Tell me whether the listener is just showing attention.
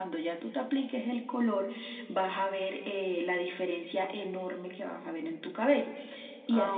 No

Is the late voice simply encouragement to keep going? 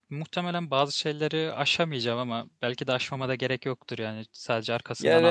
No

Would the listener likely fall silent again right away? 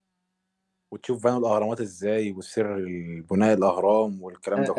No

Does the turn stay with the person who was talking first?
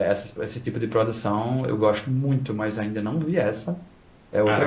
No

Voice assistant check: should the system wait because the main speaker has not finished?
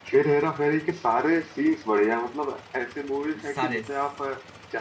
Yes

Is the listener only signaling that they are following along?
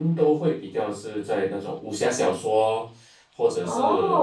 Yes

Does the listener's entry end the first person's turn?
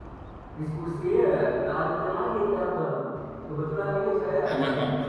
No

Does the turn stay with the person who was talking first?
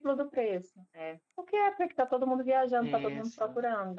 No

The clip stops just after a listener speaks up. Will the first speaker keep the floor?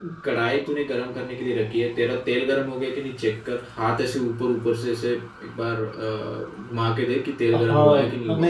No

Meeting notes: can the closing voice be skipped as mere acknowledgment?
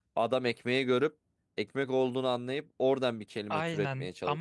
No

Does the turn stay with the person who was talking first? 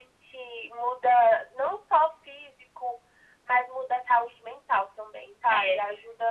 Yes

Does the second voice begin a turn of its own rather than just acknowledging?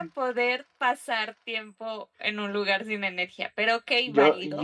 Yes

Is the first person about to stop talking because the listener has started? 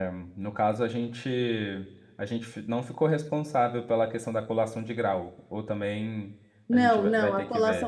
Yes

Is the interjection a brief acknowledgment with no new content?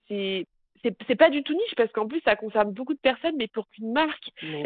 Yes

